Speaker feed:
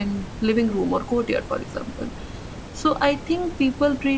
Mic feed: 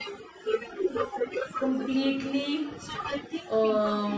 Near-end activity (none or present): present